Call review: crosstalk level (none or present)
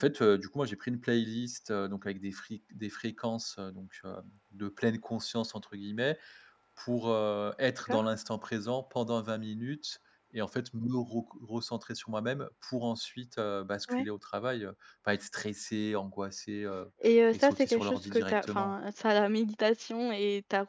present